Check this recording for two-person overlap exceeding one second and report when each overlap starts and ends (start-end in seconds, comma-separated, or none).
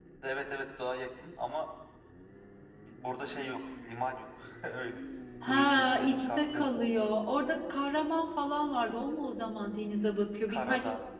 5.4-6.6